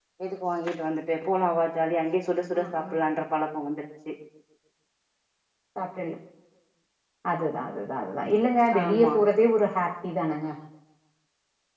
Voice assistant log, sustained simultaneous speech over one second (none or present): none